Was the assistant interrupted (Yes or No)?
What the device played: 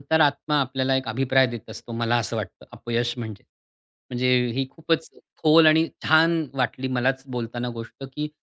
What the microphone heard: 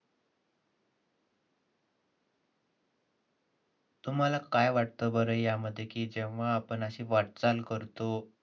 Yes